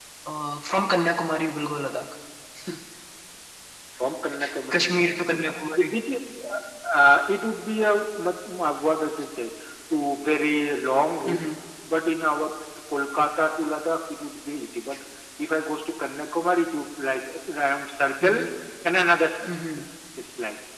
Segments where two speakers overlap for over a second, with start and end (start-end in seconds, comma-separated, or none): none